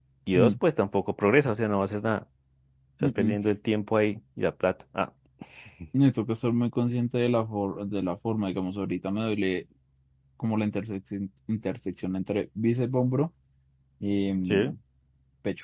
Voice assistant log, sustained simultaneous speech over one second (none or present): none